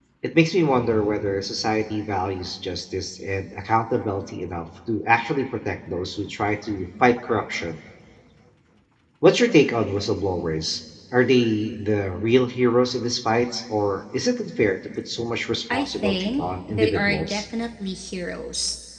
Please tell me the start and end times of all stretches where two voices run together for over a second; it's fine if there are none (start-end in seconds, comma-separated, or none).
15.7-17.4